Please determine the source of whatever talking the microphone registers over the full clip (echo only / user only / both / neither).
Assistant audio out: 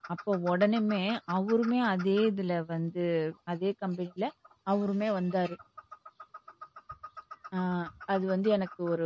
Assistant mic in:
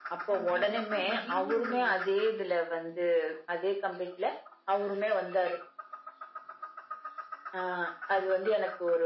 both